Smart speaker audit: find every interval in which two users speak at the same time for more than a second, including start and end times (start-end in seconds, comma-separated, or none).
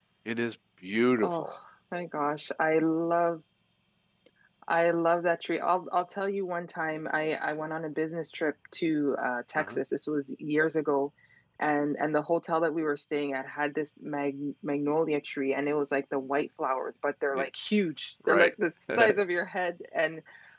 none